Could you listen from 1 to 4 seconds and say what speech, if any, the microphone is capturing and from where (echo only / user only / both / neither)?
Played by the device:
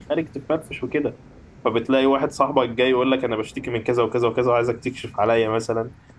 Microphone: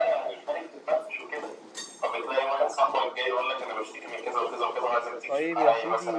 echo only